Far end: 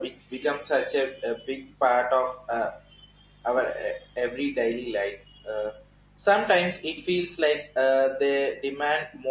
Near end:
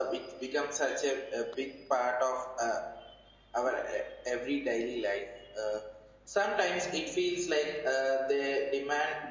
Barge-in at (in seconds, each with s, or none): none